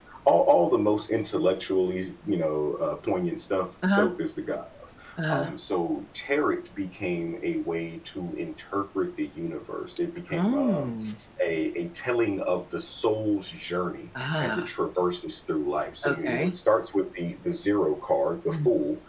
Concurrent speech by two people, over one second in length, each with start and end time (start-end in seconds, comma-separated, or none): none